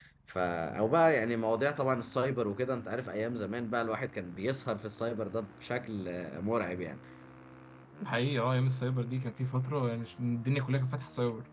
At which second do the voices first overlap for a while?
none

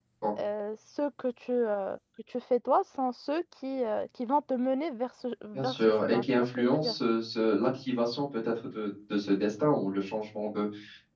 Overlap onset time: 6 s

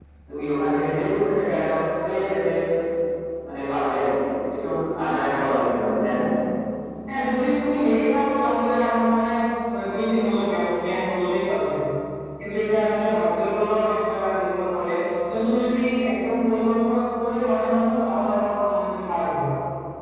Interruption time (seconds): none

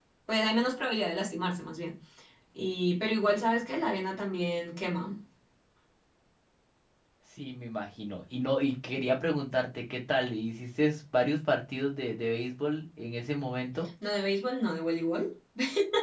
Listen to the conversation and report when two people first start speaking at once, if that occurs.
none

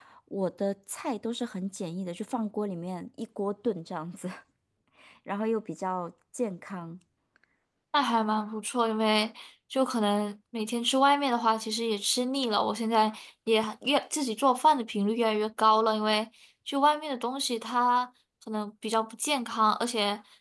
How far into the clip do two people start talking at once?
none

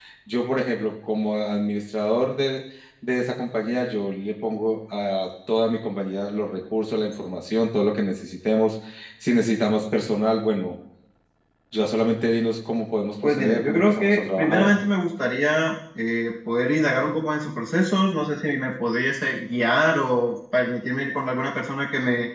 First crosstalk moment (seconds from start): 13 s

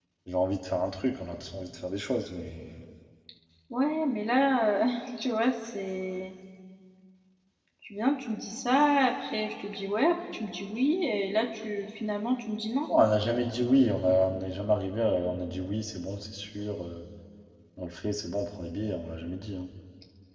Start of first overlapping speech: none

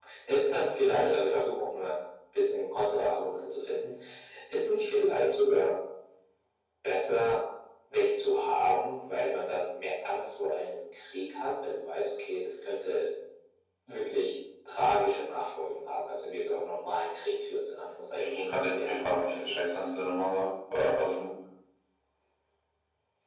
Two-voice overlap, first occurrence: 18 s

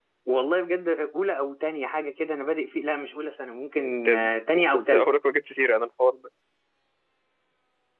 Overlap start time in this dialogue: 4 s

